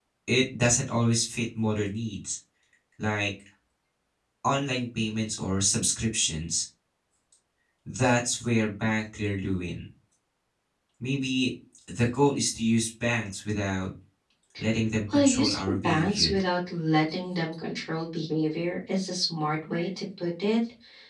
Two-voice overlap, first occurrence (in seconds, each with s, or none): 15.1 s